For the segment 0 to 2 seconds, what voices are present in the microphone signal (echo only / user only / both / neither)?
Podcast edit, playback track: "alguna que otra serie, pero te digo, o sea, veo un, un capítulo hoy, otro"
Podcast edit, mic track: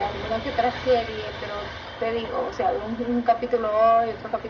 echo only